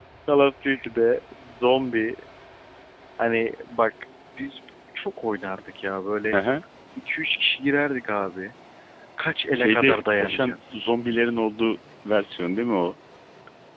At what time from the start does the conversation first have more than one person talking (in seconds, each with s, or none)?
9.5 s